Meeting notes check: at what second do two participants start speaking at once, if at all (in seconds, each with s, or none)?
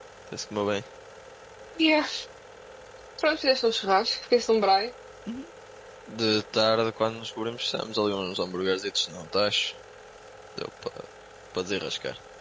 none